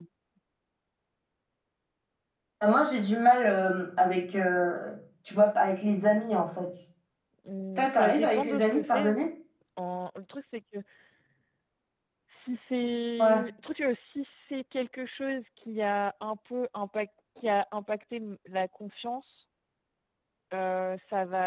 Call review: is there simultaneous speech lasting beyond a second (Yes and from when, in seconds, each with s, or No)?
Yes, from 7.8 s